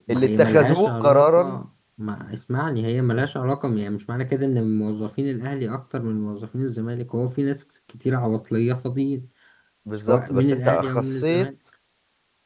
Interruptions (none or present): present